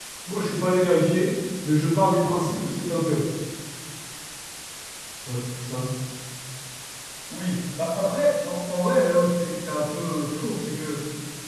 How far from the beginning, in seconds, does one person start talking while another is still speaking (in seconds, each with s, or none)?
none